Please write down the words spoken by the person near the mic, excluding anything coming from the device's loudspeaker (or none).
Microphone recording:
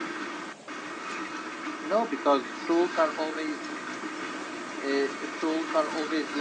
none